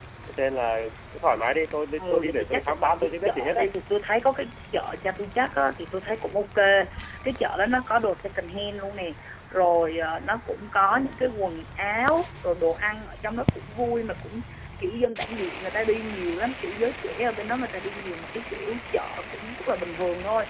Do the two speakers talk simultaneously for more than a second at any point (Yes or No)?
Yes